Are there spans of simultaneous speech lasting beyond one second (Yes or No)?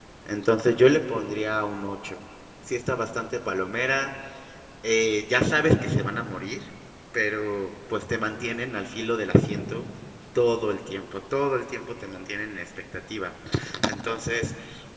No